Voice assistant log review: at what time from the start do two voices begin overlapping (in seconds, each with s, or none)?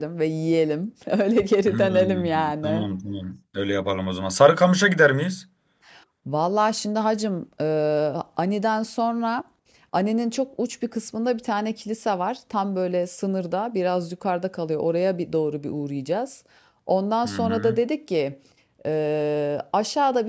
1.7 s